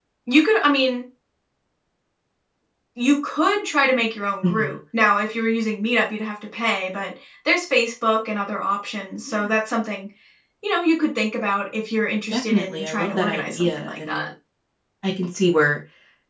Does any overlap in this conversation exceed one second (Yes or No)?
Yes